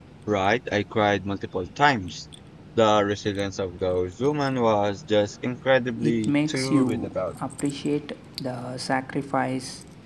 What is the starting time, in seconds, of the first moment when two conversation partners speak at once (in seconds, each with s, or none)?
6.0 s